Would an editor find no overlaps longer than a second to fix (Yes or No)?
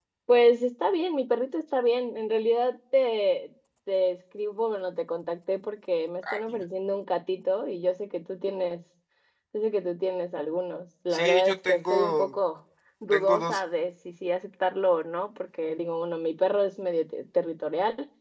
No